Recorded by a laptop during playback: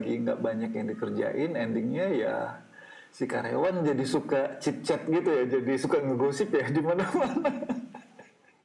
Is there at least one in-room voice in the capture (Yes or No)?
No